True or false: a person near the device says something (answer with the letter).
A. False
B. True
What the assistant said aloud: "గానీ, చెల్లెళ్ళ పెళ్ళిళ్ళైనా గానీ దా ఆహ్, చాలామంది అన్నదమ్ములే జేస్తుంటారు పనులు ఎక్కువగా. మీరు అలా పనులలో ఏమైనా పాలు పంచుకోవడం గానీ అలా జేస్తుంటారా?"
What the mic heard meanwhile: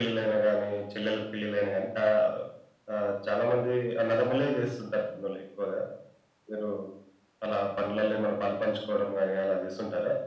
A